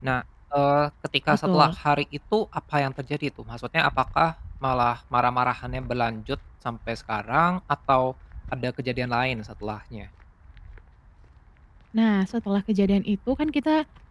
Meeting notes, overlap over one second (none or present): none